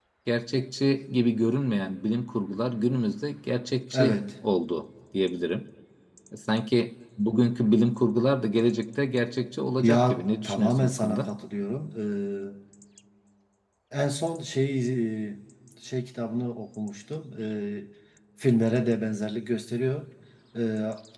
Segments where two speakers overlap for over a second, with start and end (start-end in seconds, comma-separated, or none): 9.8-11.3